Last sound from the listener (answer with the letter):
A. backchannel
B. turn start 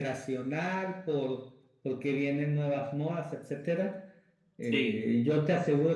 A